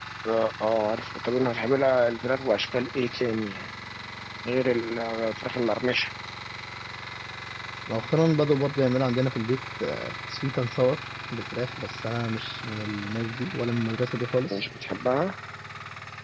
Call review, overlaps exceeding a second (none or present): none